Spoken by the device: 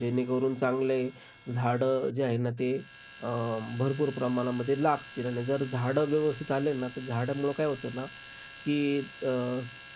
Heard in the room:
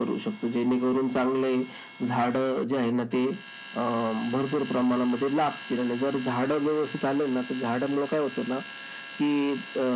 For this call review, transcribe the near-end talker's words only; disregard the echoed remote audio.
none

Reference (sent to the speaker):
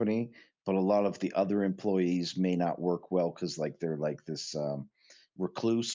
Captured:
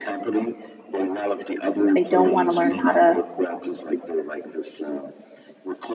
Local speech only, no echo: they don't want to learn how to,

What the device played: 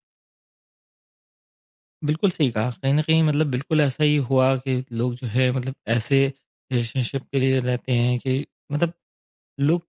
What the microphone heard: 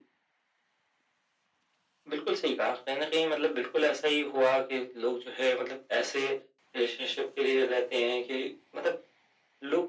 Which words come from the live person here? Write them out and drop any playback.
none

